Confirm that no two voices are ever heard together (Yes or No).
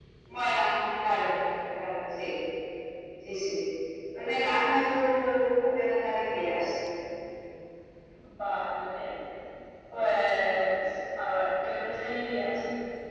Yes